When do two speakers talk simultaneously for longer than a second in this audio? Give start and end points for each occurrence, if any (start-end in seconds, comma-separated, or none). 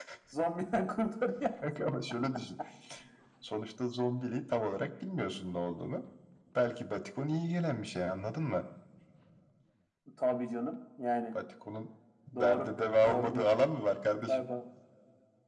12.3-13.5